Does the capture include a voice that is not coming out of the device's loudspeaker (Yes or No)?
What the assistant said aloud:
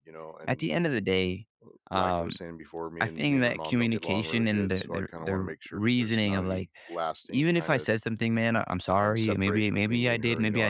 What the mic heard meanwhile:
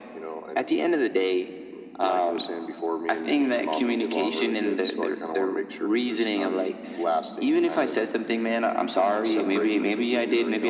Yes